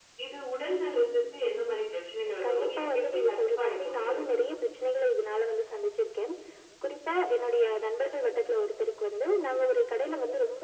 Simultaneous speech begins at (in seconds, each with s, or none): 2.4 s